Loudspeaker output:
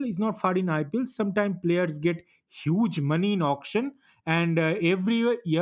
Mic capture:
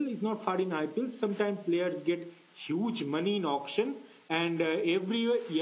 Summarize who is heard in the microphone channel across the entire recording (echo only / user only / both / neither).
echo only